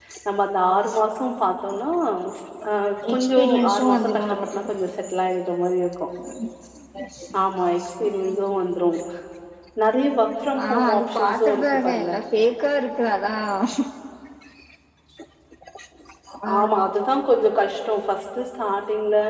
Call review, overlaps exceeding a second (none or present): present